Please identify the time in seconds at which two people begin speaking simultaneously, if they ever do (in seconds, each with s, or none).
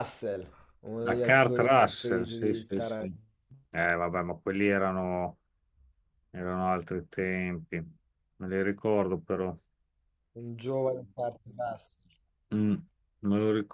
1.0 s